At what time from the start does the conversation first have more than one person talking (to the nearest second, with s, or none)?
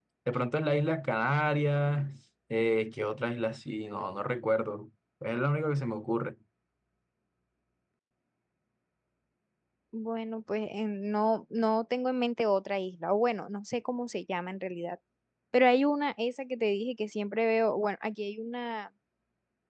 none